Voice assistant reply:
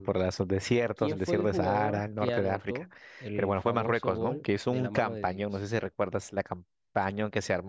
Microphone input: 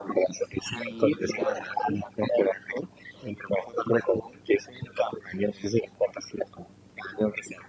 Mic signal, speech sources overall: both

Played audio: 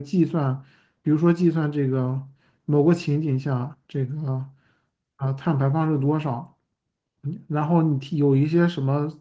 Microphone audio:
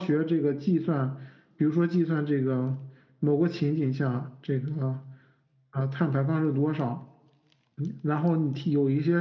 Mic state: echo only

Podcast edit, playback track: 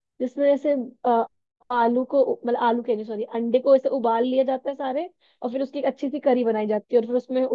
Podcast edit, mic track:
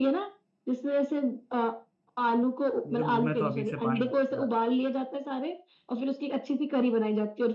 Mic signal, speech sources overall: both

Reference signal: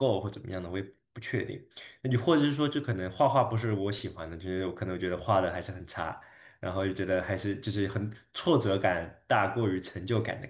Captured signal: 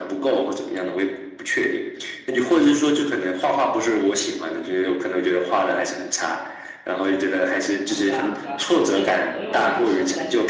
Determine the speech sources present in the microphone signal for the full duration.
both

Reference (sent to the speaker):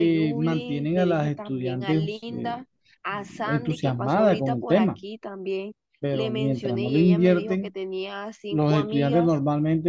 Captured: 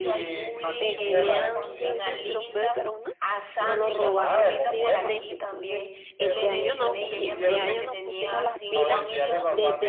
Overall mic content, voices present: both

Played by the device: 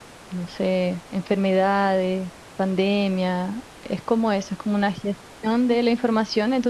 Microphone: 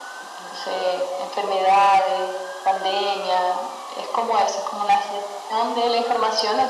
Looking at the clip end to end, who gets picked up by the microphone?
echo only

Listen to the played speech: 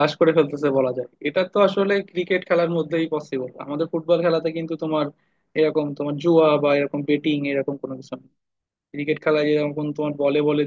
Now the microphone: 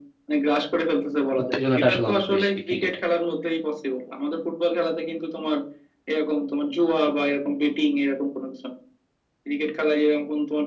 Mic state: both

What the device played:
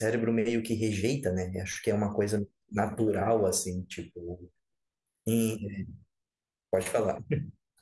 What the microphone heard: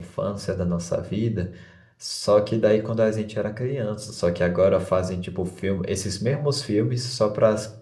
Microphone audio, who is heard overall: user only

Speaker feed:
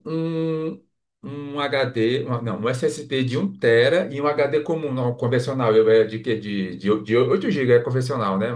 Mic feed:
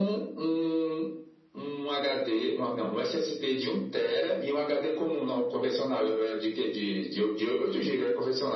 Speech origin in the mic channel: echo only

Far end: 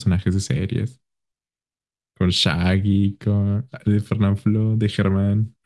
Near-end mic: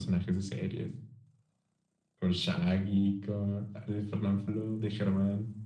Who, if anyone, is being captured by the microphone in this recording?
echo only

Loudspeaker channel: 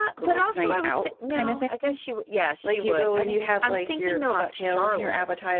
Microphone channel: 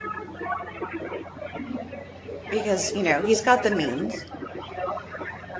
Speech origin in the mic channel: both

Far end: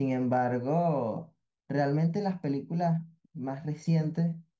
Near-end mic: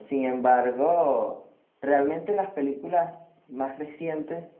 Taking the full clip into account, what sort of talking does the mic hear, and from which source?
echo only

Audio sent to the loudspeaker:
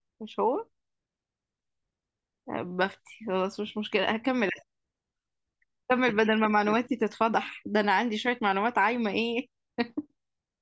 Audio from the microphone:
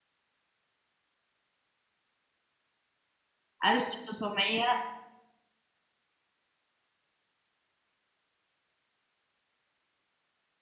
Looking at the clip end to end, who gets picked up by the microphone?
user only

